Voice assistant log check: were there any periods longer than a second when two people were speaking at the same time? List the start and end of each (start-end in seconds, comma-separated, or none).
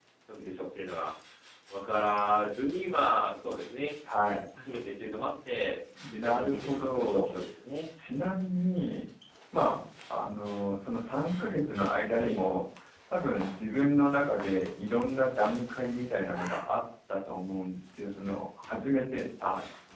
6.0-7.3